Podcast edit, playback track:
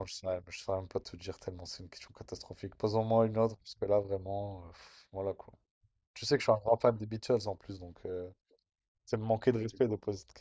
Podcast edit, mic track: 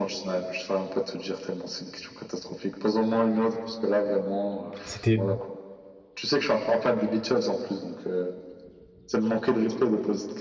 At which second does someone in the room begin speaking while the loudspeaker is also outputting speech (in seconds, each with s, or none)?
4.8 s